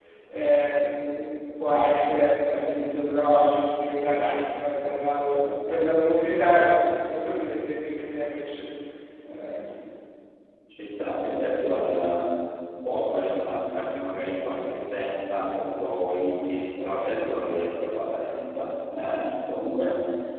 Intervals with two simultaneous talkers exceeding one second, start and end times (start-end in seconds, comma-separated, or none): none